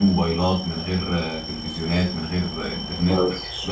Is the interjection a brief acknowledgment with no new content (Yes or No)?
No